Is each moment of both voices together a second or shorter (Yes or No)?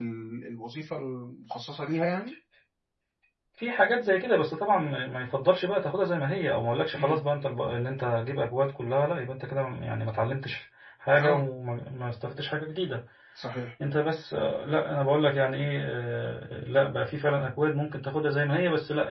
Yes